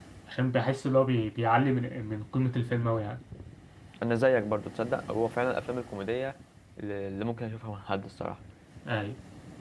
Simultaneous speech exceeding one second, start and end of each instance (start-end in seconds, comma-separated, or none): none